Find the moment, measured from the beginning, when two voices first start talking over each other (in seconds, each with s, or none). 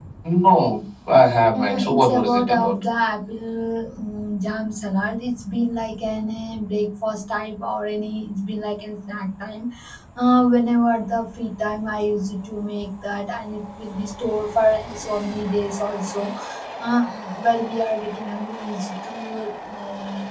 1.5 s